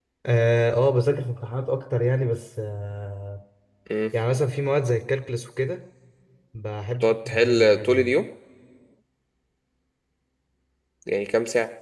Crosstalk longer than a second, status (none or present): present